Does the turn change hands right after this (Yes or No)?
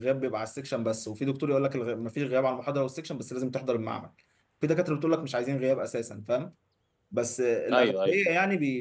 No